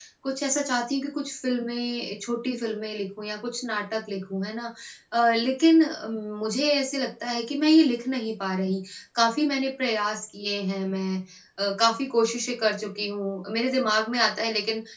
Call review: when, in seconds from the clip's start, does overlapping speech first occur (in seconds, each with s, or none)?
none